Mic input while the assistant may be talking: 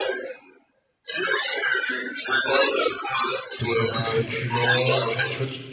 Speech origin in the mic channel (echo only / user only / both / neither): both